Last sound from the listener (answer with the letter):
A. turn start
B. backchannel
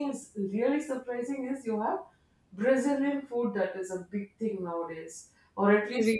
B